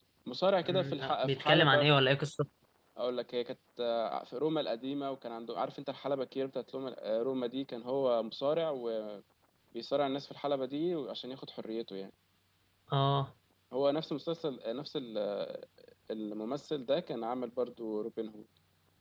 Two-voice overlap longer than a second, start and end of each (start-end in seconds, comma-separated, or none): 0.6-1.9